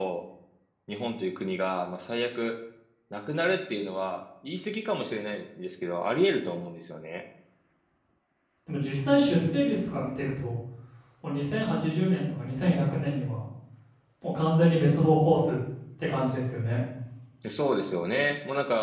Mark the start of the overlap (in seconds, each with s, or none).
none